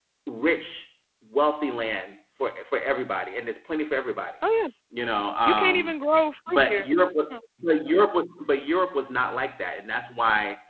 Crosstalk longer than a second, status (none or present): none